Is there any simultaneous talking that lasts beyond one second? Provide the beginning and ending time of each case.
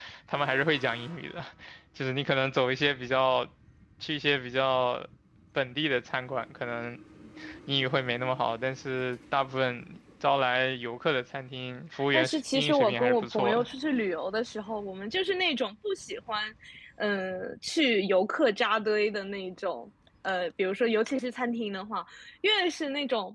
12.1-13.7

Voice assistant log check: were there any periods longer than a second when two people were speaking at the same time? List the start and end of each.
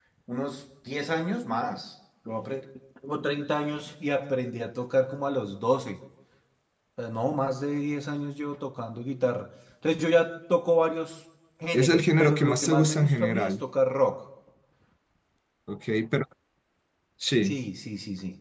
11.7-13.6

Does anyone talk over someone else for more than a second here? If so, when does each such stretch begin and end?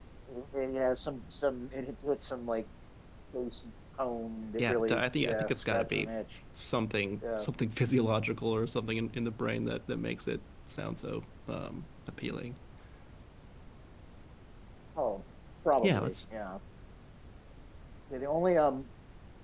4.6-6.1

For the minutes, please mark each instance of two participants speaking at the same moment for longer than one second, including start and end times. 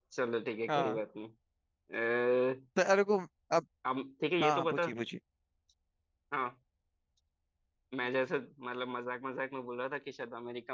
none

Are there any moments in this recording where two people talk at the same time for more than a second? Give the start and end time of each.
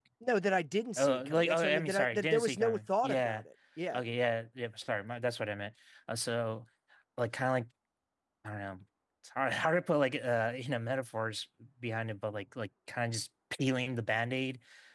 1.0-3.4

